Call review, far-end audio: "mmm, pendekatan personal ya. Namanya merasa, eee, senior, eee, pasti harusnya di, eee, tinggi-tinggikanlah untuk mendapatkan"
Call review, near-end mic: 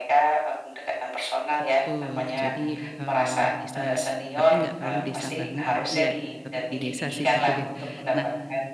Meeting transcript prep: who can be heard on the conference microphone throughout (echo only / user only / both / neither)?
both